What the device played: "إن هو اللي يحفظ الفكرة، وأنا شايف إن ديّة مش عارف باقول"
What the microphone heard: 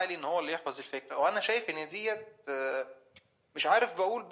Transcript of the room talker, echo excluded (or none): none